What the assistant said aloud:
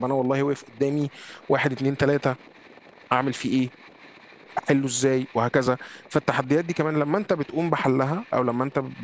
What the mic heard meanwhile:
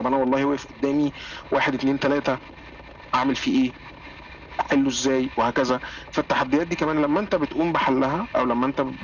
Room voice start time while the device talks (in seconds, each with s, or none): none